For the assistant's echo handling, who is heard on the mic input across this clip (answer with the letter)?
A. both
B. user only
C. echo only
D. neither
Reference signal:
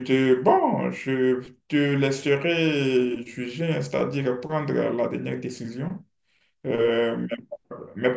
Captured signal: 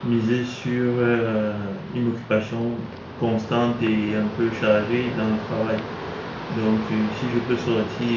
B